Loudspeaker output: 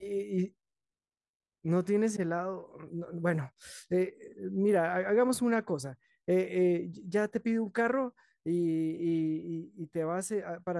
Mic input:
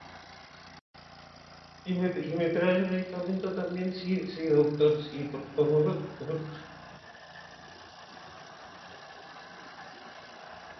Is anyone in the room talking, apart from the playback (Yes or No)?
Yes